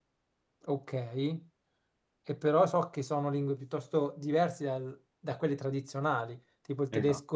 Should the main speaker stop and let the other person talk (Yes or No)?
No